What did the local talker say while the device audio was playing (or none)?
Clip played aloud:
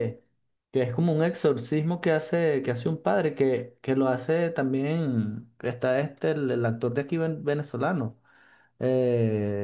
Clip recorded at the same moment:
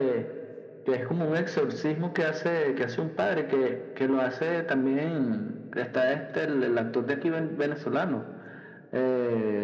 none